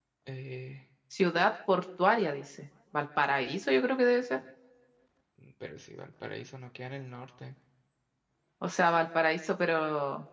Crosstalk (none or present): none